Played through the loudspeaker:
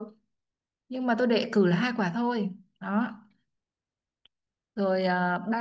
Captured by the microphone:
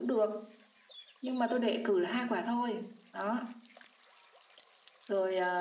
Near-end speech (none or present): none